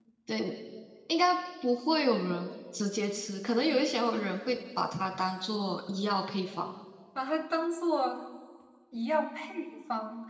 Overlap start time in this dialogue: none

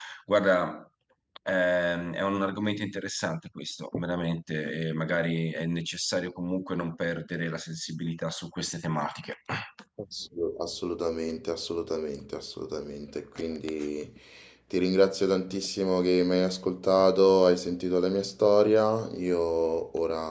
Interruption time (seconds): none

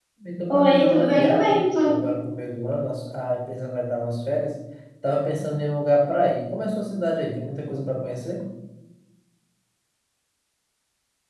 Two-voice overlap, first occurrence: 0.5 s

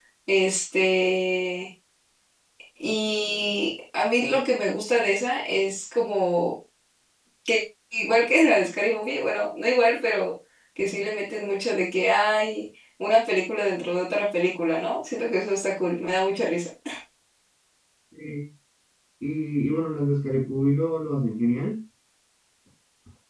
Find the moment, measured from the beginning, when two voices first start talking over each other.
none

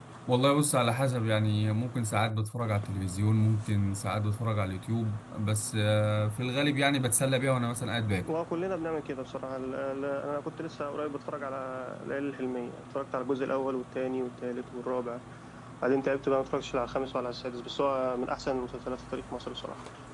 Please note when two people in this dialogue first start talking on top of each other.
none

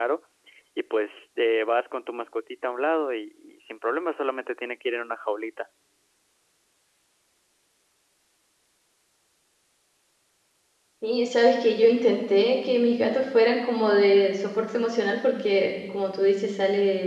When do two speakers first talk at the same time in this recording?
none

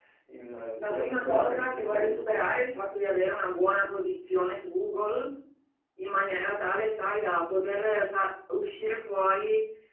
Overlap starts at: 0.8 s

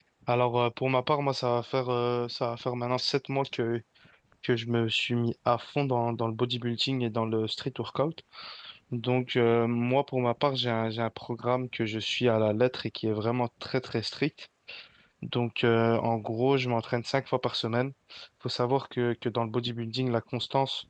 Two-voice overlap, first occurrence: none

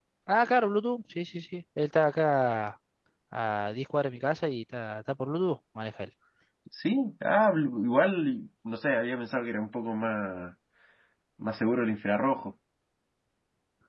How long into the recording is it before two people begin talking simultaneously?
none

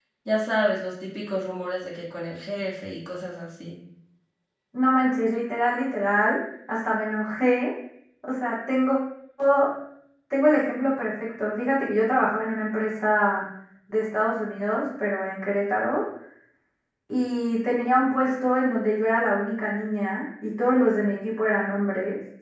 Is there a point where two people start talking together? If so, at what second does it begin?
none

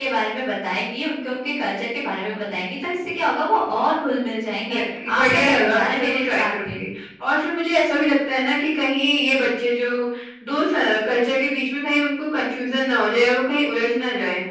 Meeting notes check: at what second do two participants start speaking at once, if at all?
5.2 s

